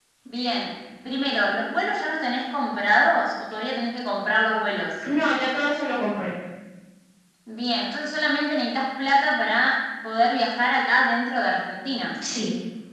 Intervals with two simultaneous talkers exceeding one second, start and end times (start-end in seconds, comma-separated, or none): none